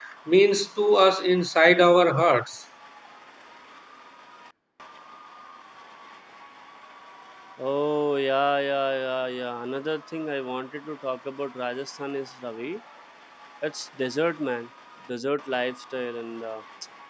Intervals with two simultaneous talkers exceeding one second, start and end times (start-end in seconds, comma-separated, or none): none